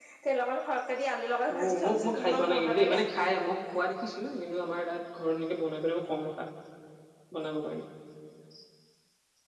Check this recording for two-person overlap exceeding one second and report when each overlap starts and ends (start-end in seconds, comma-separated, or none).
1.6-3.0